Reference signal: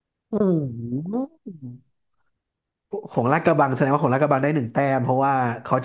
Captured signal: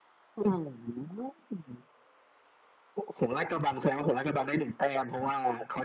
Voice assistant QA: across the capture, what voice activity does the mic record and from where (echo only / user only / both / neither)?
echo only